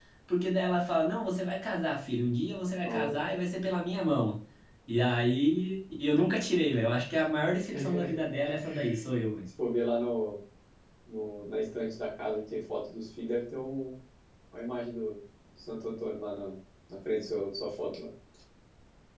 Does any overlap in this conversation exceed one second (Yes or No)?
No